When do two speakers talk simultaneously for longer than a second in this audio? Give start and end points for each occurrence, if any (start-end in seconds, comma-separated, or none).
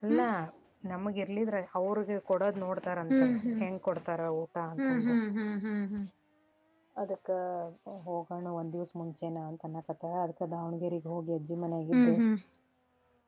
none